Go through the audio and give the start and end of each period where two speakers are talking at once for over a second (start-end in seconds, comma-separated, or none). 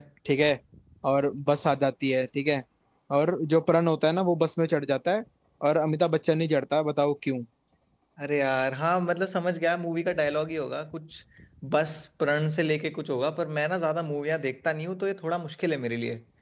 none